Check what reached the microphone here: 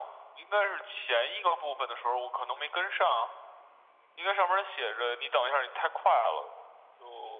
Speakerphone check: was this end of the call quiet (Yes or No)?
Yes